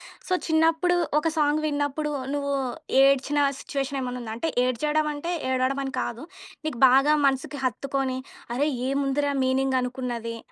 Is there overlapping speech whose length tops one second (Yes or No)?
No